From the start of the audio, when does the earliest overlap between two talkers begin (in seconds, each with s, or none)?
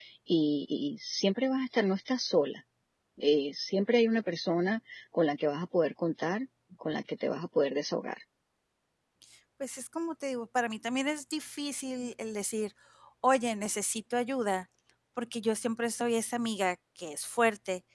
none